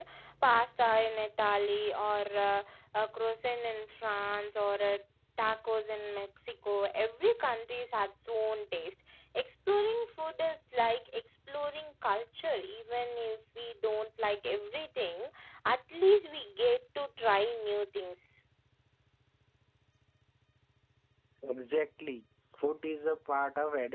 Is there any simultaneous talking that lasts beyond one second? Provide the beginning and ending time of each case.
none

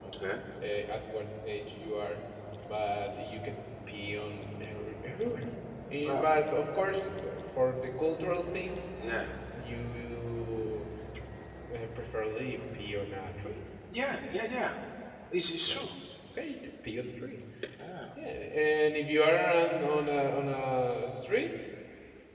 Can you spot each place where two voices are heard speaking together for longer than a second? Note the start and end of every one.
none

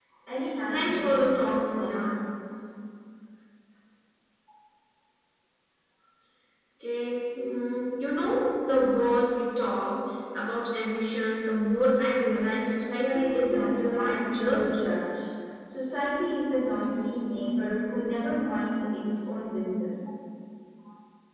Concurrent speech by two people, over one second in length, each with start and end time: 0.7-2.2, 13.0-14.7

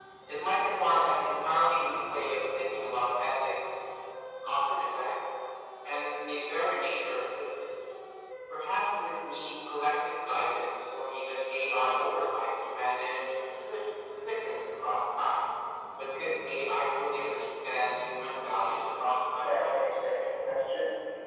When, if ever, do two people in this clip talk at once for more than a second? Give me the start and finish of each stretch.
none

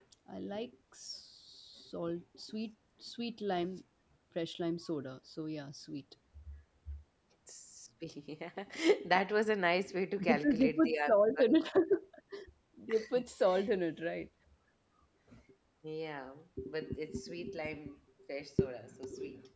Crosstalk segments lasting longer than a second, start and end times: 10.2-11.5

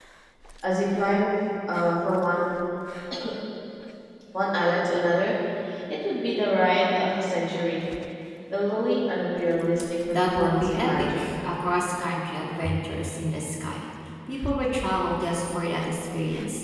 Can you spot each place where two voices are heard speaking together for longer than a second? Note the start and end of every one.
10.1-11.4

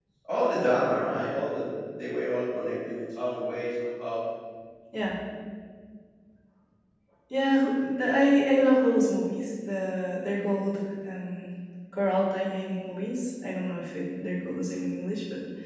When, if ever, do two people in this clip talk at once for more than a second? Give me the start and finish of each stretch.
none

